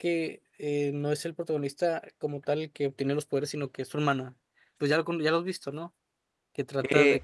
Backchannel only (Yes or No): No